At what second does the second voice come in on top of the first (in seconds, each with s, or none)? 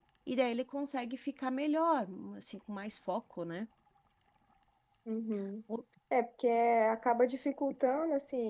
none